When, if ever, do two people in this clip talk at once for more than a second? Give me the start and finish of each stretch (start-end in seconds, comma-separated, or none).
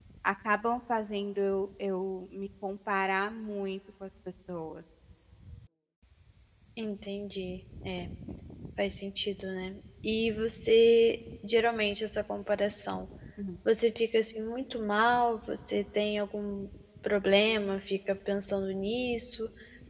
none